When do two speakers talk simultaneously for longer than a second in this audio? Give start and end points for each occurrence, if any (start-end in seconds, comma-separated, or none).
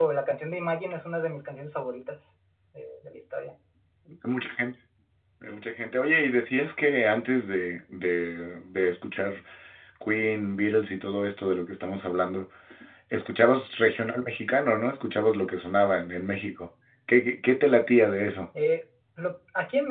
none